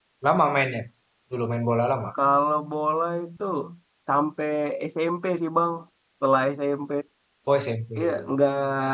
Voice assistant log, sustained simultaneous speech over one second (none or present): none